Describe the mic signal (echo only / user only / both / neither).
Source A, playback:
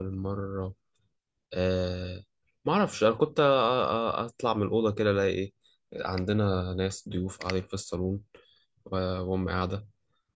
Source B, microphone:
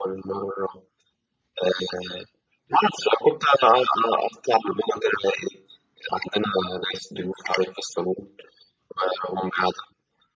echo only